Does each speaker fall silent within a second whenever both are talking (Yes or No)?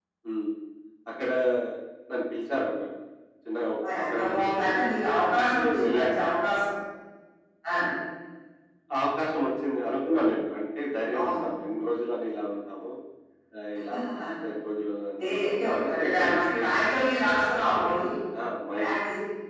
No